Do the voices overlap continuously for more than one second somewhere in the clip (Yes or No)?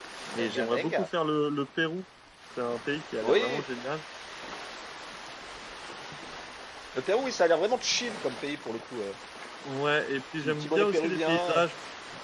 Yes